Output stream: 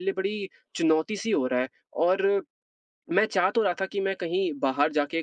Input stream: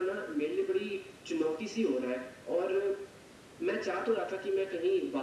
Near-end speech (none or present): none